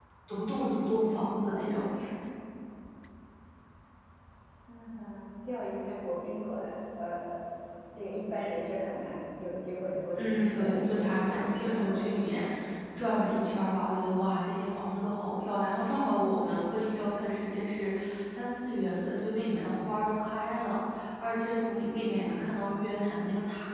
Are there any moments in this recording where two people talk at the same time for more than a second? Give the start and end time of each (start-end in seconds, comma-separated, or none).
10.2-12.0